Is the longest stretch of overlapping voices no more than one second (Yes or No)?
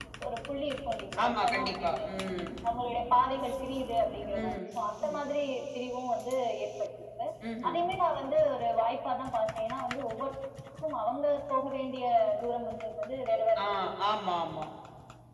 Yes